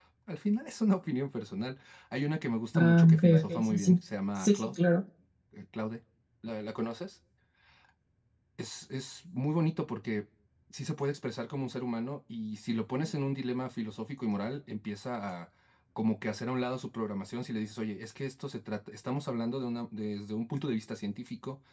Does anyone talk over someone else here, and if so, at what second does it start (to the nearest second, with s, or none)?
3 s